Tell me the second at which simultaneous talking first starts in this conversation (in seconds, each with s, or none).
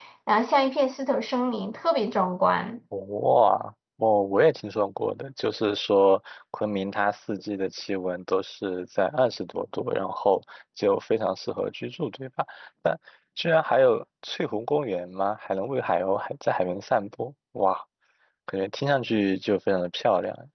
none